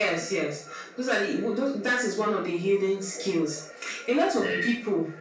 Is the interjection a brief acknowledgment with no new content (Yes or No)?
Yes